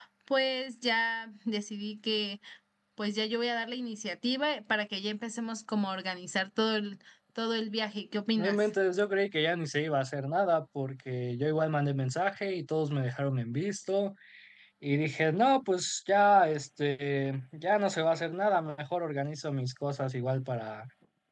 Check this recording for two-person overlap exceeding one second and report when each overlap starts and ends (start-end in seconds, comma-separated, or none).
none